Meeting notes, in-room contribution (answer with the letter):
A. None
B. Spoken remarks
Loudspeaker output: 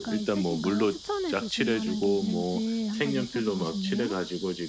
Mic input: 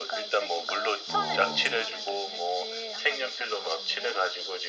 B